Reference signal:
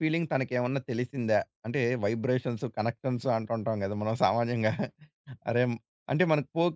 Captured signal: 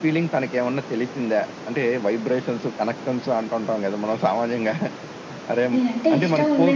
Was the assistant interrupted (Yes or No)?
Yes